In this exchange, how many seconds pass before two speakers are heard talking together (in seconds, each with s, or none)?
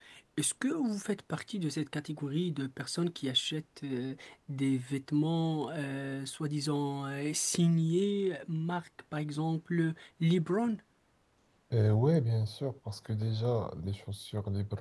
none